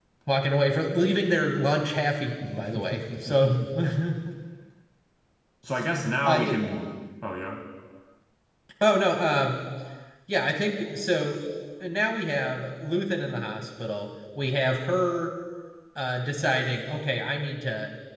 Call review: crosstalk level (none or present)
present